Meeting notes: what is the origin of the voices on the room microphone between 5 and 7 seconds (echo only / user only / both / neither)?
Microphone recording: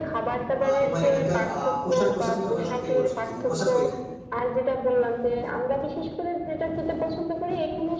echo only